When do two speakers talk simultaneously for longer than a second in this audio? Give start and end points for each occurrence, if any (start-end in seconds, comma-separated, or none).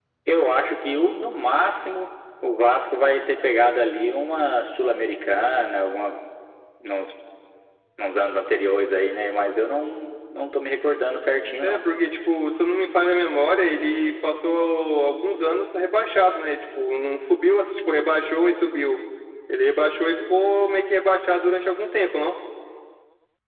none